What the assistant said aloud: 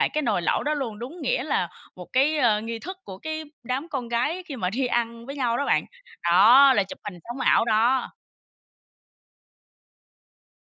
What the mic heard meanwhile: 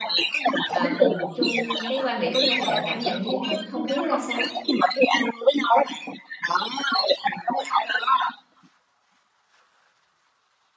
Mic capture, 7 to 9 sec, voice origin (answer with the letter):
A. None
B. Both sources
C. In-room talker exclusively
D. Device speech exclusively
D